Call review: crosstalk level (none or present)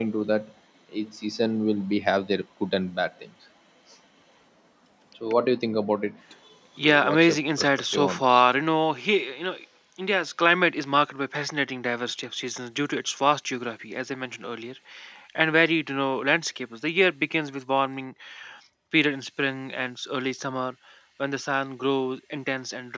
present